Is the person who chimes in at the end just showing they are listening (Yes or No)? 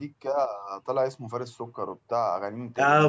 No